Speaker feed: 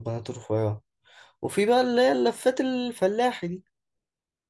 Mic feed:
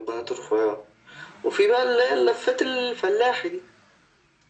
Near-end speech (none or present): none